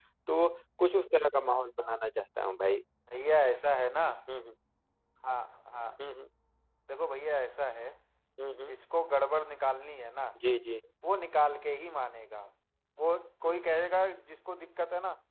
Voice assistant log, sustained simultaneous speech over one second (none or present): none